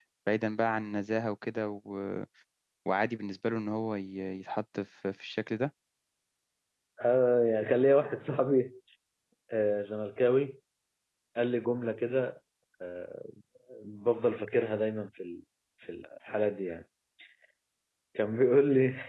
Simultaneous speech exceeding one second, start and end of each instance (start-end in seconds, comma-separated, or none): none